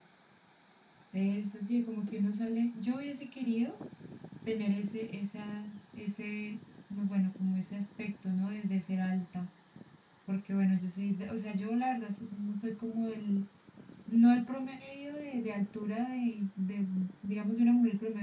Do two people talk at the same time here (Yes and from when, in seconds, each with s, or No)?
No